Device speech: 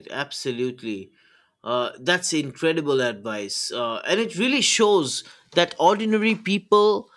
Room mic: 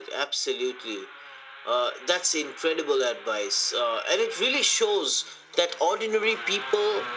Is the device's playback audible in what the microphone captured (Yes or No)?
Yes